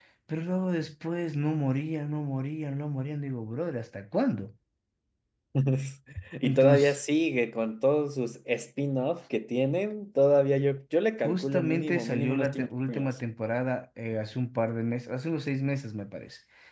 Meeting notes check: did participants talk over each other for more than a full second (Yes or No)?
Yes